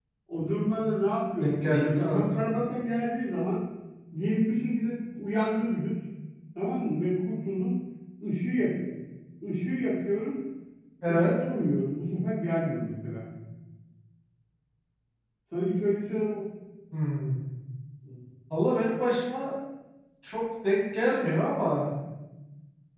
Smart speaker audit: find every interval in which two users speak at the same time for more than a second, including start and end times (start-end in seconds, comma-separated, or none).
1.4-2.6